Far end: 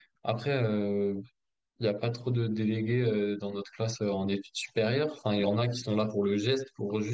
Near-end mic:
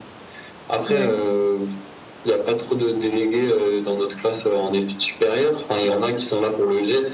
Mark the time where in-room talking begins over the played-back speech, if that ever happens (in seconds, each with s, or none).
0.9 s